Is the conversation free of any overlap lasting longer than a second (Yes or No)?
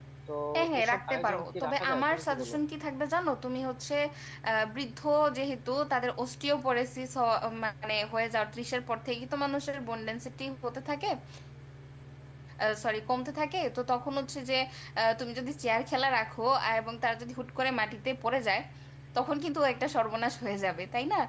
No